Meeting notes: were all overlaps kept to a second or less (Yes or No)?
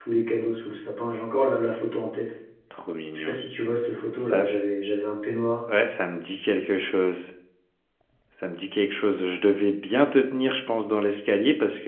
Yes